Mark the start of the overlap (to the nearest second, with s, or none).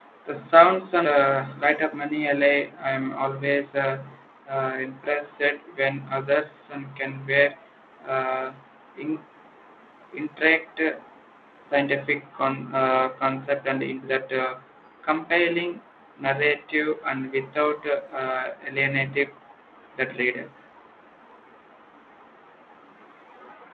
none